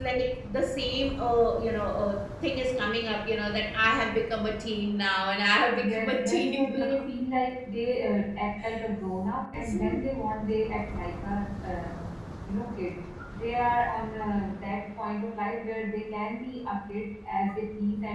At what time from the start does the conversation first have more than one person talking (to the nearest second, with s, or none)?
6 s